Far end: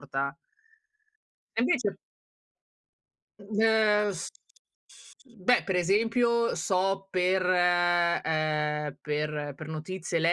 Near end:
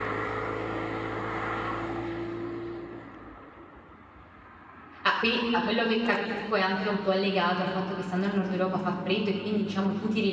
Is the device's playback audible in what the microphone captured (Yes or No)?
No